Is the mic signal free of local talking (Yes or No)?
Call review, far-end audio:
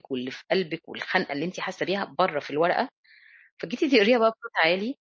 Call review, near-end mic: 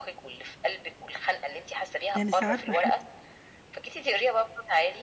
No